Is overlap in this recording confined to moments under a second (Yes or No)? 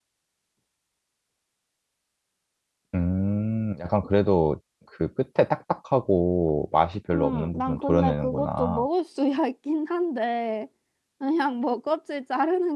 No